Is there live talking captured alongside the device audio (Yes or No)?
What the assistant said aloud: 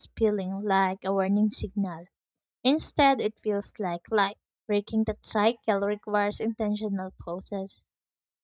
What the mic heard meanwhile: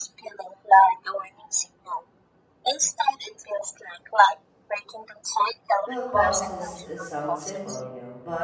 Yes